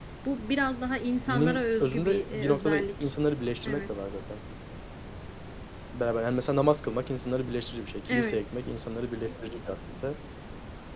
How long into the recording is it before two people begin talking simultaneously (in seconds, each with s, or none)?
1.2 s